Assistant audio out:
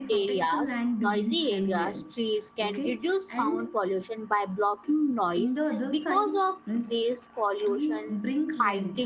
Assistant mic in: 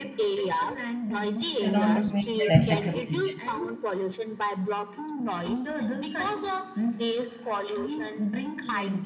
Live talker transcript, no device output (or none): ते राऊंड अप मी पण ऐसा करते